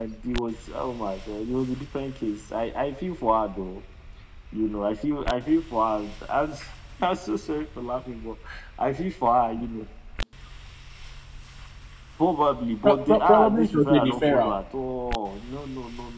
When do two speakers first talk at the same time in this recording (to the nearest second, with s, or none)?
13 s